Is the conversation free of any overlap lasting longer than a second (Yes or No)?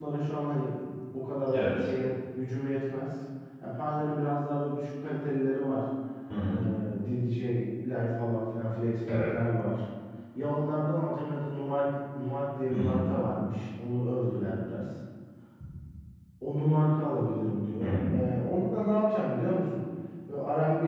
Yes